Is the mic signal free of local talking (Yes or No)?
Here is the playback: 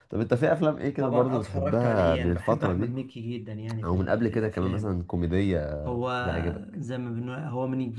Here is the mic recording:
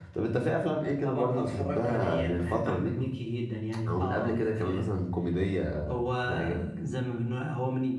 No